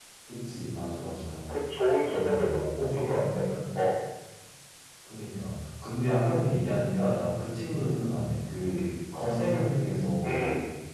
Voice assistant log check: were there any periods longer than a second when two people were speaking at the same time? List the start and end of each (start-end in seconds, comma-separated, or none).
2.0-3.5